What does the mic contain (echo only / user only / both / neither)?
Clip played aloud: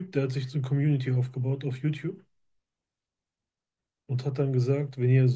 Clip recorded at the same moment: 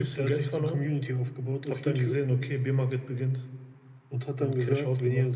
both